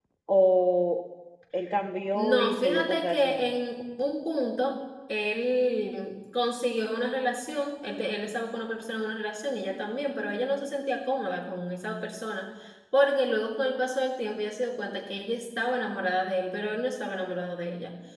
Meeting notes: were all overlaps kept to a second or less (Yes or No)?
No